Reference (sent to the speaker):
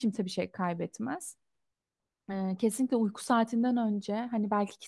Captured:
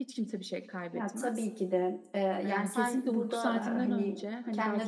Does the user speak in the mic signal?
Yes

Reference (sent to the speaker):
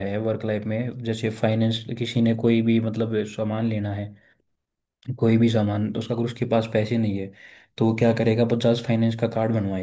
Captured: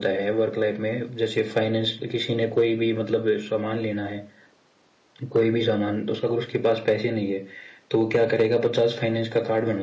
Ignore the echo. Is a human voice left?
No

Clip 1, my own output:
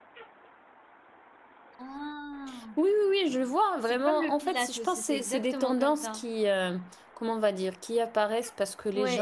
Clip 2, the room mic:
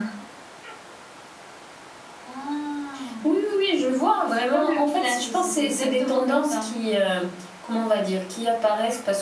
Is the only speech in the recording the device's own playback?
Yes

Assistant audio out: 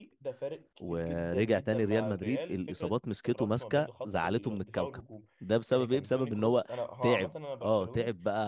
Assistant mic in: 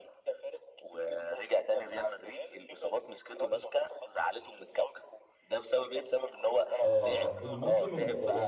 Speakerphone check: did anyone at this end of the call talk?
Yes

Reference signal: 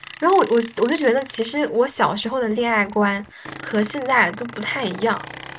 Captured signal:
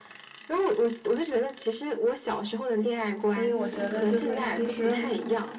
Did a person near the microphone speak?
Yes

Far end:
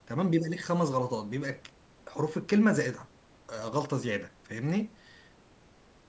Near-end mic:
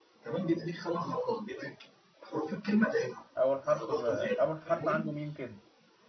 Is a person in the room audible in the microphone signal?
Yes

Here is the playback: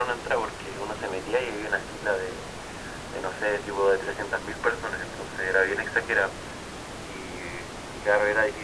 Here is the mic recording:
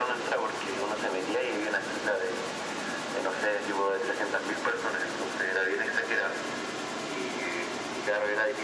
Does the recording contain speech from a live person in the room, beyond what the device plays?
No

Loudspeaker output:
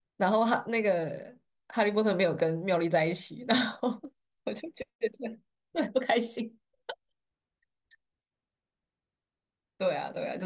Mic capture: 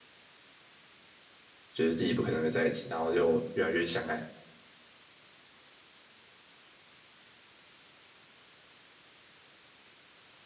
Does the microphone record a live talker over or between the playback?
Yes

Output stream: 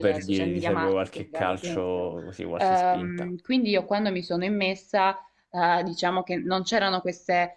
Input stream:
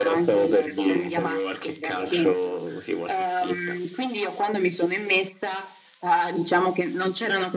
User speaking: No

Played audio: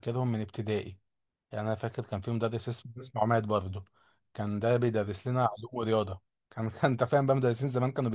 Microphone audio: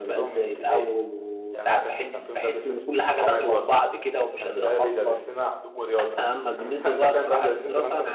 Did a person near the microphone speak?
Yes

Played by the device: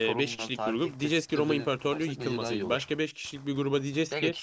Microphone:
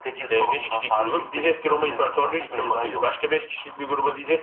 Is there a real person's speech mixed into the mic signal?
No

